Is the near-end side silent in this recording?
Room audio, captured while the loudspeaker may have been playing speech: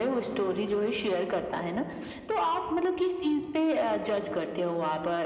Yes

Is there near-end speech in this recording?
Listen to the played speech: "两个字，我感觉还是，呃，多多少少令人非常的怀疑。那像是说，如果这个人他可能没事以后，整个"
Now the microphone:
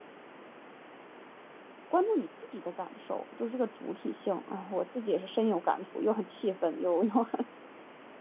Yes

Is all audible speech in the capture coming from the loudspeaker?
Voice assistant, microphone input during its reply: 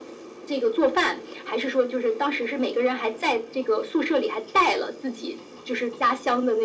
Yes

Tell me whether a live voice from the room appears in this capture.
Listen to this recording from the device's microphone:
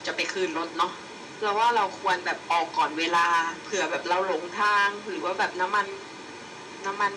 No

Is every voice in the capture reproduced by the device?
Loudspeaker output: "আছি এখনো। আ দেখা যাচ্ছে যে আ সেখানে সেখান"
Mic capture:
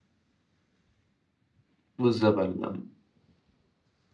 No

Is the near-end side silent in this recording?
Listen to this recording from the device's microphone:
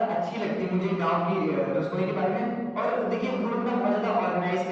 Yes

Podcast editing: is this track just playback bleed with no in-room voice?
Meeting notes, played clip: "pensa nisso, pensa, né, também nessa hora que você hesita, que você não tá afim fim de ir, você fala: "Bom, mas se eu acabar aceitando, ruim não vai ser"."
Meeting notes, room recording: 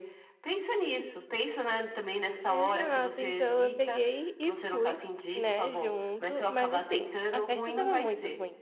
No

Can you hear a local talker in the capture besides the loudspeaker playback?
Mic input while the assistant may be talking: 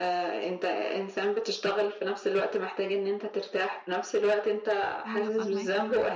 Yes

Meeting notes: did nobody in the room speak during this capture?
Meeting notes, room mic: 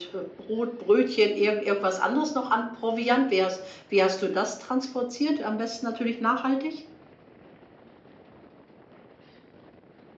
Yes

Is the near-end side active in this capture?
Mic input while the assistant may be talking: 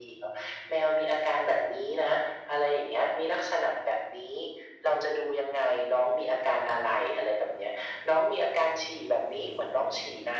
No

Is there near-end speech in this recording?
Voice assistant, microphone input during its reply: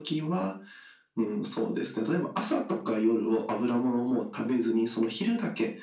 No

